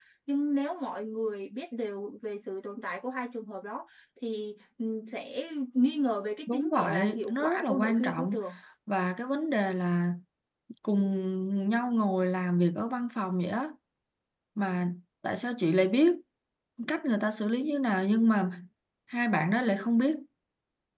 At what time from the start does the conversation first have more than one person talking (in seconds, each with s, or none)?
6.5 s